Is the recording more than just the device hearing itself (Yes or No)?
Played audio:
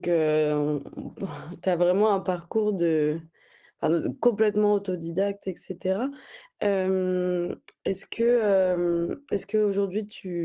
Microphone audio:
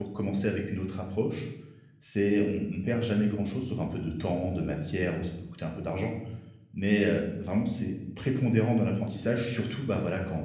Yes